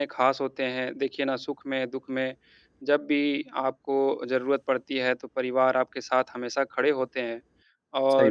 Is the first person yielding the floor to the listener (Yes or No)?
No